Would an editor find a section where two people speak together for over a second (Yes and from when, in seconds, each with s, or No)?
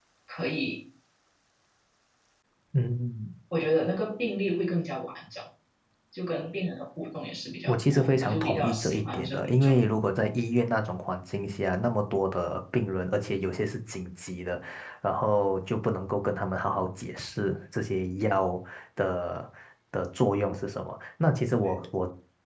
Yes, from 7.6 s